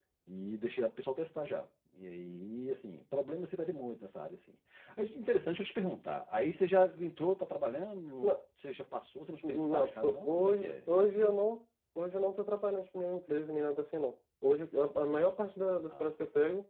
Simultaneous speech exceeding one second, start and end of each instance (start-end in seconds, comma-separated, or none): 9.5-11.3